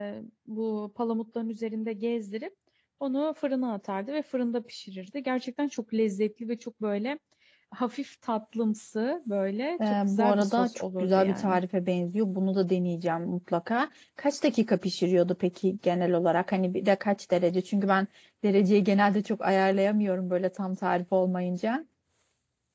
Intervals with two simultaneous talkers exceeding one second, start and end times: 9.9-11.6

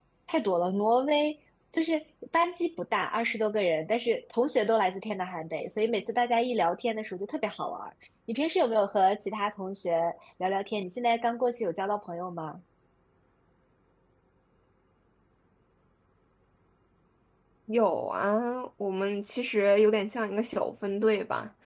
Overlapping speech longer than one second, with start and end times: none

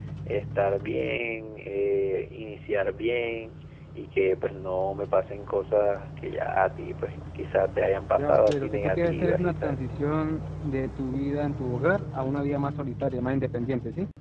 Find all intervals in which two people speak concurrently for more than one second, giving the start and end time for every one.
8.2-9.8

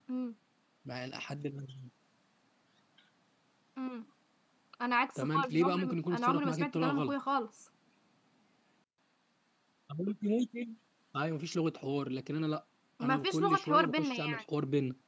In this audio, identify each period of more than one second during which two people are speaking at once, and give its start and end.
5.2-7.1, 13.0-14.4

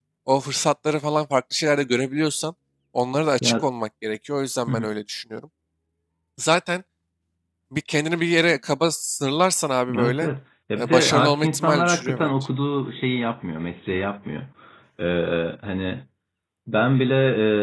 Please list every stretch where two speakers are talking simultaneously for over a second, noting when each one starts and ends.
10.8-12.3

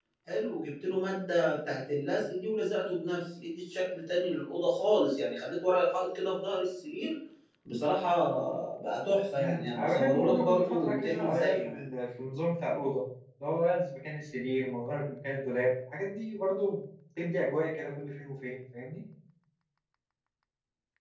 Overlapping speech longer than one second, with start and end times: 9.4-11.8

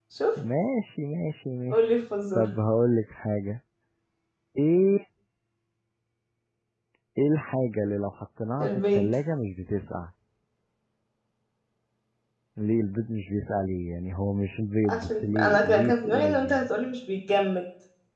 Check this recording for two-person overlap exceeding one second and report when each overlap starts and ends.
14.8-16.7

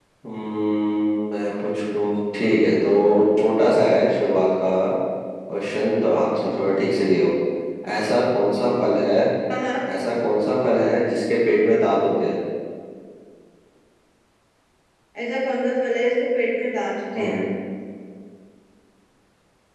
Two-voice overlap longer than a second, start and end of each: none

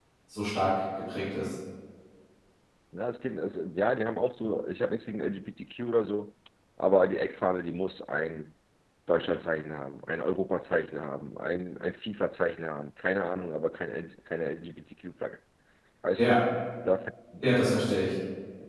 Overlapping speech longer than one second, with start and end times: none

